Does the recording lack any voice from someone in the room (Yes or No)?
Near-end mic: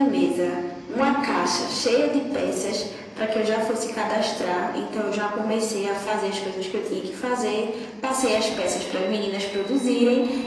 Yes